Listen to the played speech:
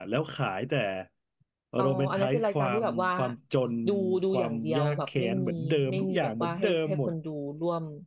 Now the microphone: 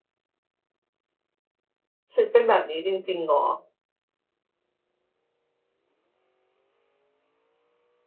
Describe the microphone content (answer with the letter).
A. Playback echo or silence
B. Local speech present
B